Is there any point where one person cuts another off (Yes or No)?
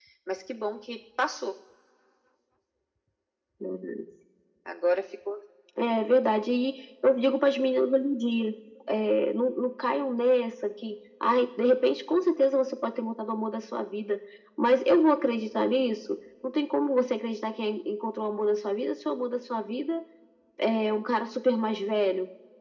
No